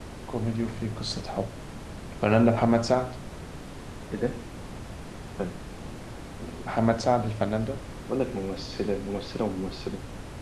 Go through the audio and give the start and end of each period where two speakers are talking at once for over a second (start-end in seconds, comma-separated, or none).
none